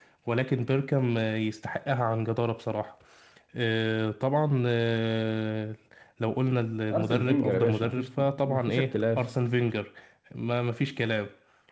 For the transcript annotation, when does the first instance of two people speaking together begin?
6.9 s

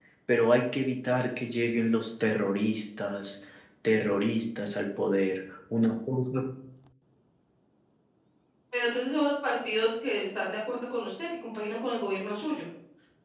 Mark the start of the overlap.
none

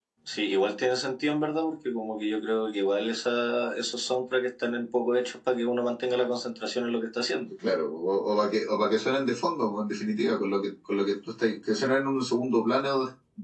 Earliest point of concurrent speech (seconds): none

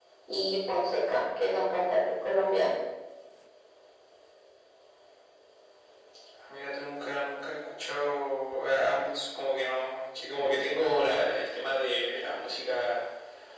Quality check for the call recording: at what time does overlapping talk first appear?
none

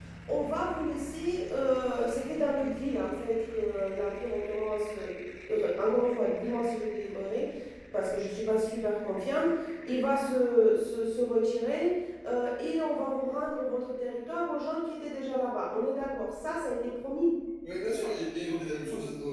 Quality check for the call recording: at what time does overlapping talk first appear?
none

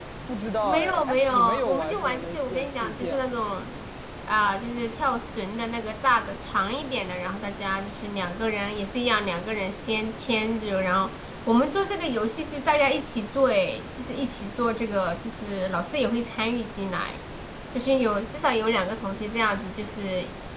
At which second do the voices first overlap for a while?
0.6 s

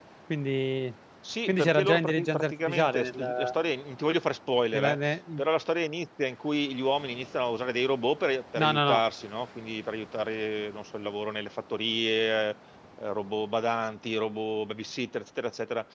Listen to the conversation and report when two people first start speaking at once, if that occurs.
1.5 s

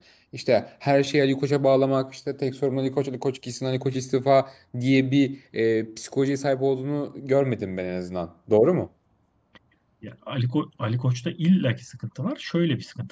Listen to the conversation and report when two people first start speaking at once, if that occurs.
none

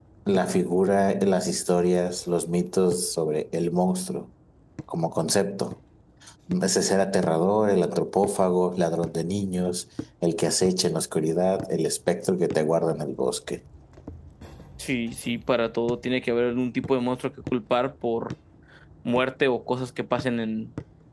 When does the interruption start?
none

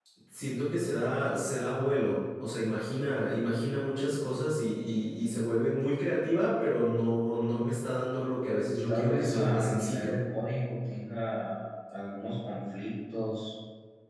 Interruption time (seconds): 8.8 s

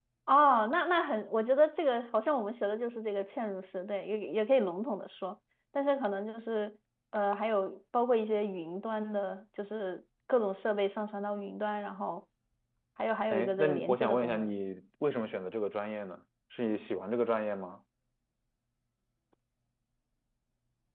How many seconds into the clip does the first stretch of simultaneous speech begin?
13.3 s

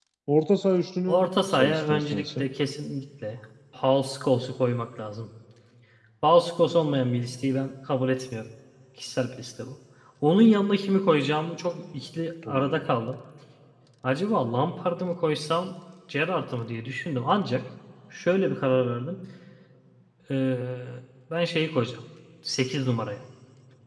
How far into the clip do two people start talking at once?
1.1 s

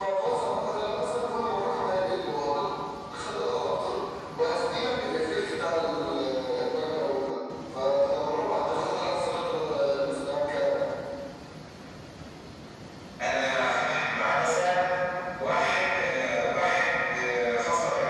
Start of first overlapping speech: none

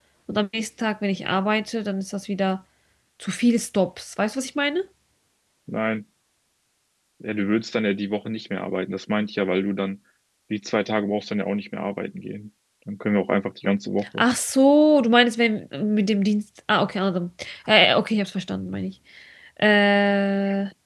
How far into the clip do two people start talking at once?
none

